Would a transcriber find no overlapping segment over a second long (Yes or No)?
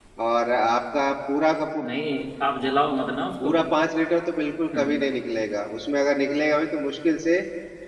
Yes